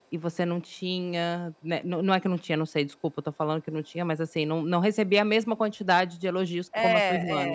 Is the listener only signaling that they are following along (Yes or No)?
No